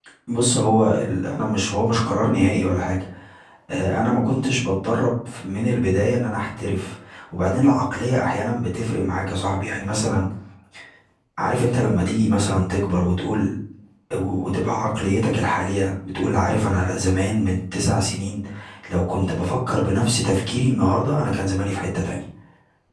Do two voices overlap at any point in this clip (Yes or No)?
No